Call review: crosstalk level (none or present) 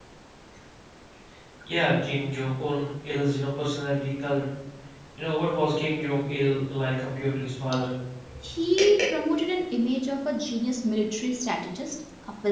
none